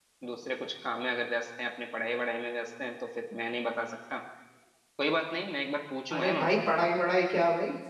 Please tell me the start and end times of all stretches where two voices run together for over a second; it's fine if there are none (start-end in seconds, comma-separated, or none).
none